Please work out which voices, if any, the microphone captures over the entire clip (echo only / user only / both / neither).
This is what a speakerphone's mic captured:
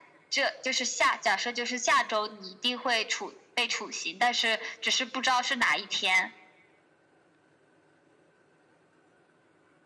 echo only